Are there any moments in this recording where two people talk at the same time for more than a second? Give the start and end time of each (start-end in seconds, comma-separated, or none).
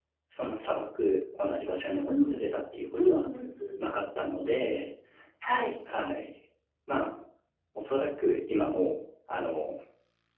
none